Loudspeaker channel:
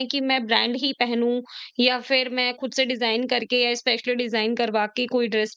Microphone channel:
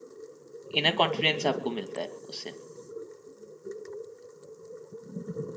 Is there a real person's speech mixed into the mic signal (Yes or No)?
Yes